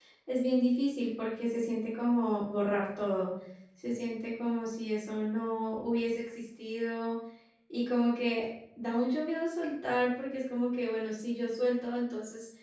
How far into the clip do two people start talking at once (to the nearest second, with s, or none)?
none